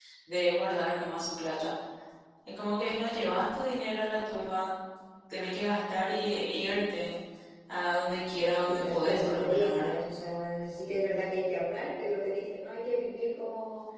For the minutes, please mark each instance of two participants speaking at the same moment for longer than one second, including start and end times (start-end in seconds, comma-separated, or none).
8.7-10.0